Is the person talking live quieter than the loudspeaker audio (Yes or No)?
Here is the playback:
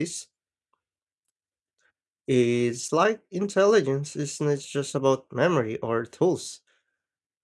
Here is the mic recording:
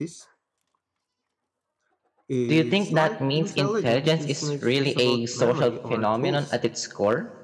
No